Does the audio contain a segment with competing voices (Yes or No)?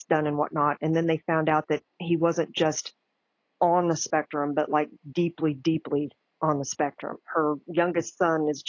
No